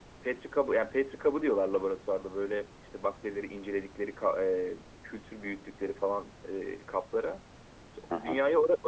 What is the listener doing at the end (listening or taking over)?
listening